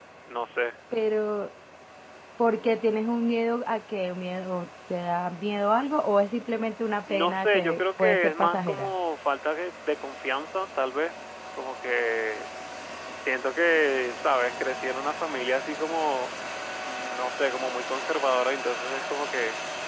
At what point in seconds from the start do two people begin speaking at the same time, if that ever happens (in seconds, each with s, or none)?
7.1 s